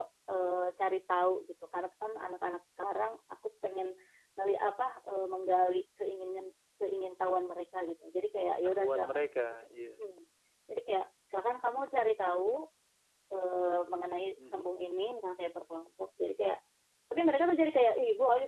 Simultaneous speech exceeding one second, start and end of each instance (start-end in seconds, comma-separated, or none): none